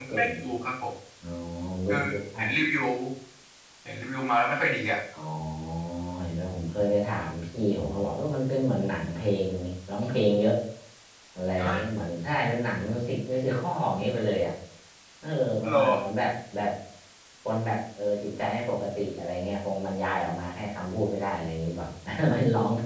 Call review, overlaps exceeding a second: none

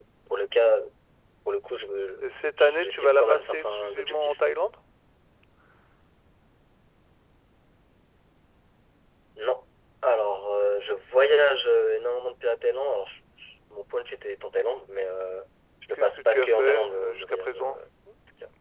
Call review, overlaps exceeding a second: present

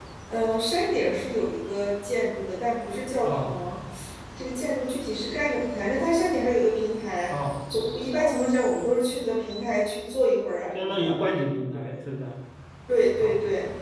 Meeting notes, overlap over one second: none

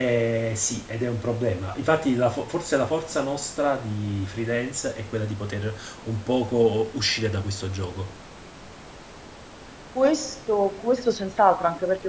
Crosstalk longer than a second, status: none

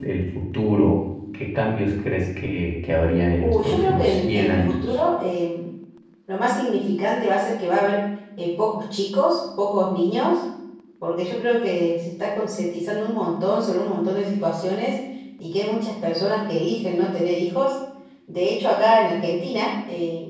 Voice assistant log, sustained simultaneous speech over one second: present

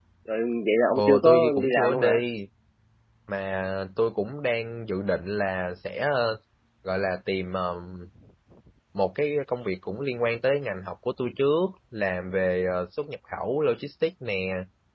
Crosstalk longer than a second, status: present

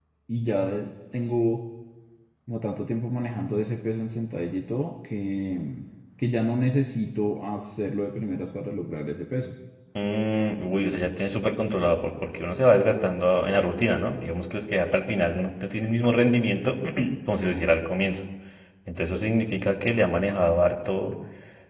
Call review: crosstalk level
none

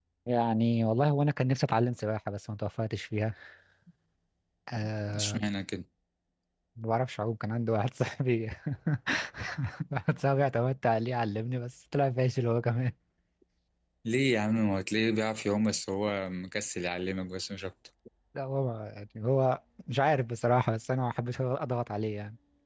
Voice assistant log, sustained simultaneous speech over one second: none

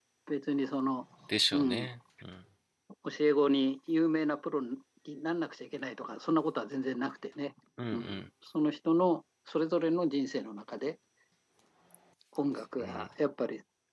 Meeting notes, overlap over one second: none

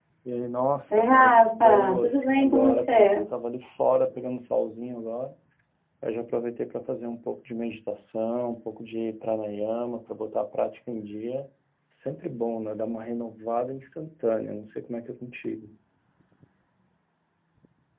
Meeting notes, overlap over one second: present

